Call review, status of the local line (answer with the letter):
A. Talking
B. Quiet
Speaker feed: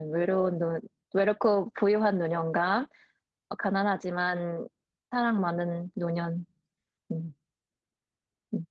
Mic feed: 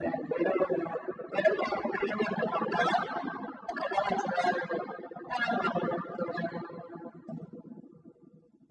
B